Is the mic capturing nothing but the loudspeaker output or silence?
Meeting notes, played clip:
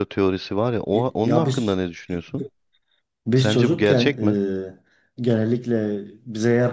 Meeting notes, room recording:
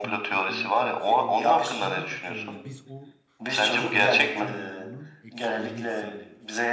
No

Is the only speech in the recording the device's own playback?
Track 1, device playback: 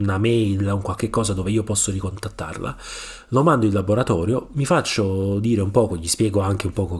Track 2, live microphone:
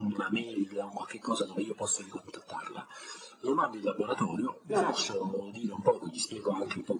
No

